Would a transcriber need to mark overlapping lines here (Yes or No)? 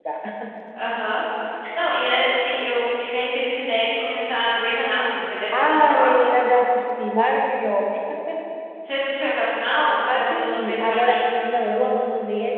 Yes